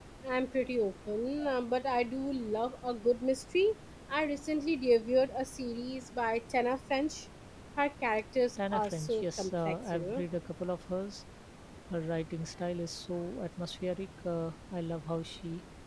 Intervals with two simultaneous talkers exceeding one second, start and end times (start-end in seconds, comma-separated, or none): 8.7-10.2